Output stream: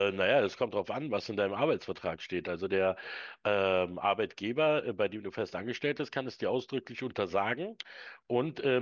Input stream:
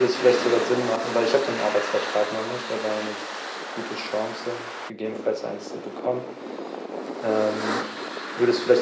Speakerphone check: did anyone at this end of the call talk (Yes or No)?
Yes